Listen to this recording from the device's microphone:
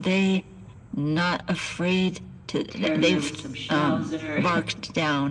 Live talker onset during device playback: 2.7 s

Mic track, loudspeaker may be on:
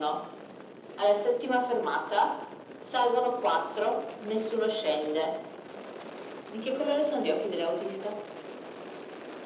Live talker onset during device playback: none

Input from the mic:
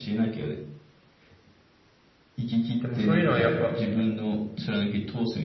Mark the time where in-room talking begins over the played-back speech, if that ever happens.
2.8 s

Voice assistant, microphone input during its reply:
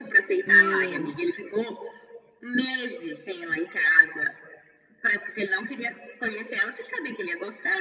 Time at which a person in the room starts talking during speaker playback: 0.4 s

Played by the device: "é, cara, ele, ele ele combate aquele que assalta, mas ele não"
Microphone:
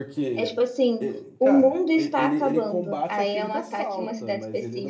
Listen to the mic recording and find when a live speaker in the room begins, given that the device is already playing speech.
0.3 s

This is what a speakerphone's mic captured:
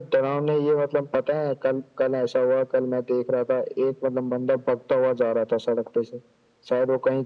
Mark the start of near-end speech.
none

